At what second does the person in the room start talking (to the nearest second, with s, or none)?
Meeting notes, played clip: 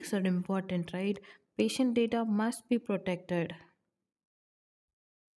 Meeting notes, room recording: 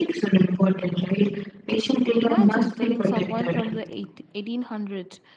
2 s